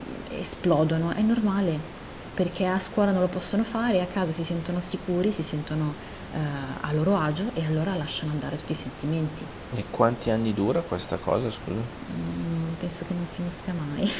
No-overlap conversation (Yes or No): Yes